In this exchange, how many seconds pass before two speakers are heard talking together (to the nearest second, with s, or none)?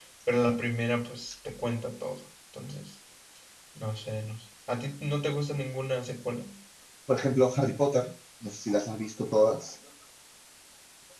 none